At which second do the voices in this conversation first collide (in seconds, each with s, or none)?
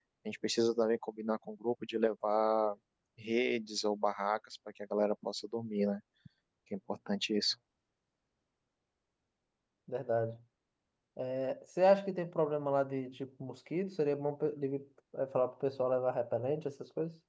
none